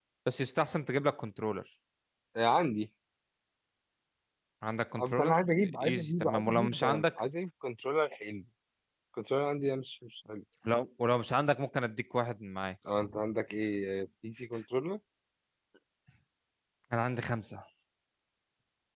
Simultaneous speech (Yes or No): Yes